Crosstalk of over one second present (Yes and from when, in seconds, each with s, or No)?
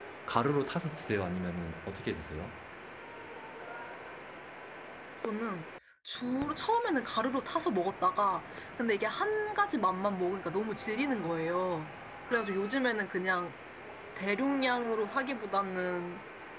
No